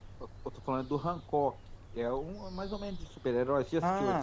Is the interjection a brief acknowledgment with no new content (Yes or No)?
No